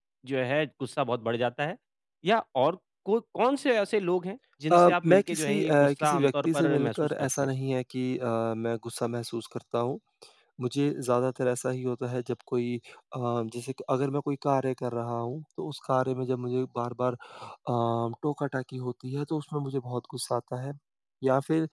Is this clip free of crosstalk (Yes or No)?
No